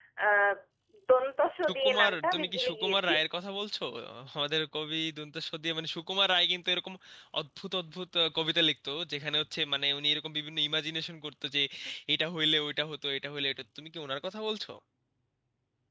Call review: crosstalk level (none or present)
present